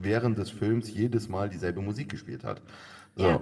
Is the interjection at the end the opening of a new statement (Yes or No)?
No